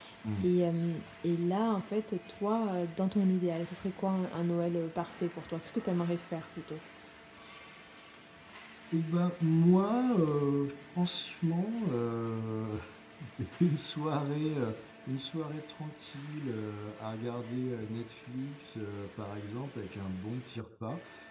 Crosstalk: none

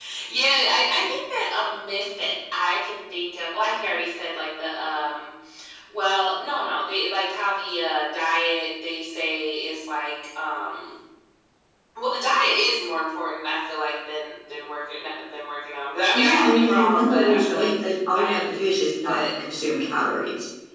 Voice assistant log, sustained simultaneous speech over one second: present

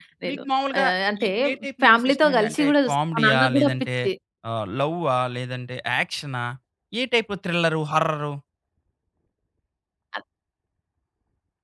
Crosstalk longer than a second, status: present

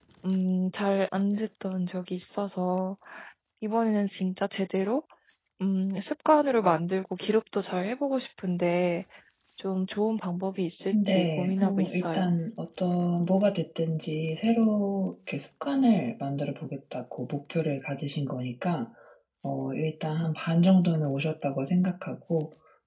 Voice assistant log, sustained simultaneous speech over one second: present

